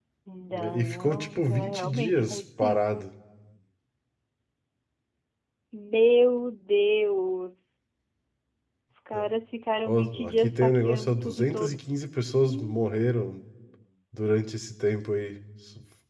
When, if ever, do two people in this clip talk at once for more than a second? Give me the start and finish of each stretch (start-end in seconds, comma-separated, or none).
0.5-3.0, 9.9-12.0